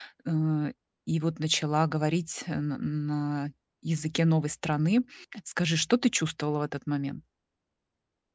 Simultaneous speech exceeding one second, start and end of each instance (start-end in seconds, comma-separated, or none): none